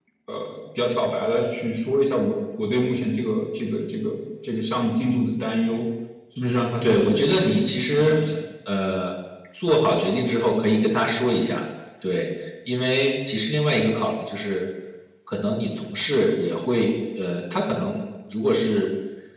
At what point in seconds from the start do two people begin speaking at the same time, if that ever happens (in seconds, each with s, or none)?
6.8 s